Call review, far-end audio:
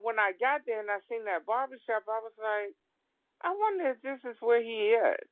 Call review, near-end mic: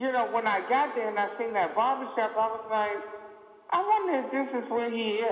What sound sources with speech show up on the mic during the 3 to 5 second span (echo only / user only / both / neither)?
echo only